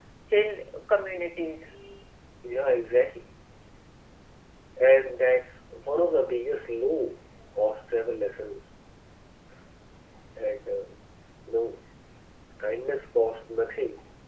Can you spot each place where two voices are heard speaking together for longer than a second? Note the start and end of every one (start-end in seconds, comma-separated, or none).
none